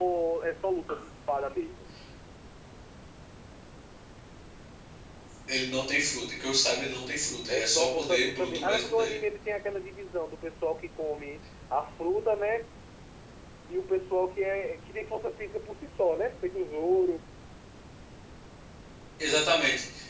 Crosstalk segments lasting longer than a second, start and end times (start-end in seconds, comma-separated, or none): 7.5-9.2